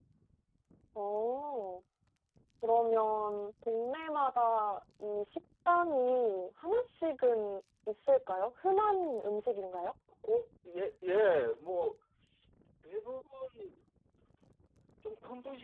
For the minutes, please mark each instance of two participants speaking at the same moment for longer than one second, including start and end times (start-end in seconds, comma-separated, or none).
none